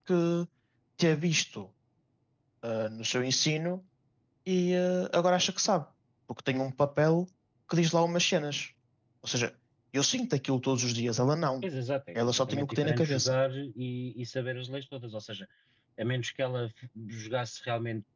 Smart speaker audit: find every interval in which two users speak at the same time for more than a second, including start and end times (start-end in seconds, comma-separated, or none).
12.2-13.3